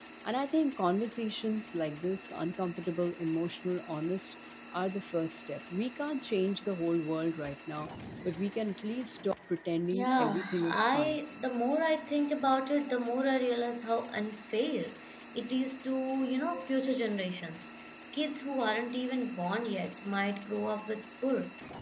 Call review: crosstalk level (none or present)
present